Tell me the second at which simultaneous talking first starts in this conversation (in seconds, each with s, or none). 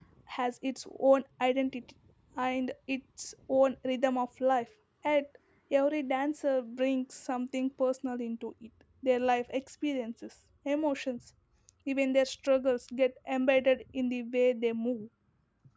none